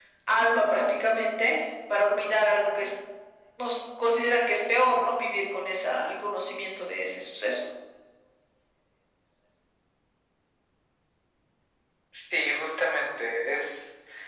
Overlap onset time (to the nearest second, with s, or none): none